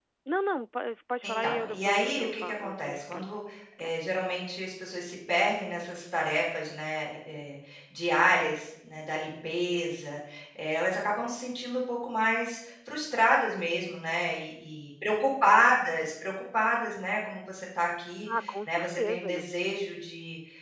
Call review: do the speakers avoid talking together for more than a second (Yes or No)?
No